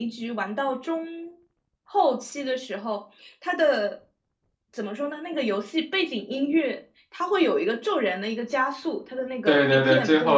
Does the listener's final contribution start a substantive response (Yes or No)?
Yes